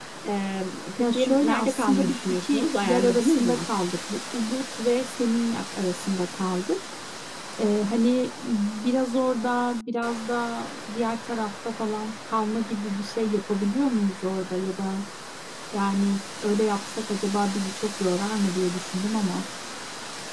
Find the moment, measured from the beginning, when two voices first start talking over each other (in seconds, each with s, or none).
1.0 s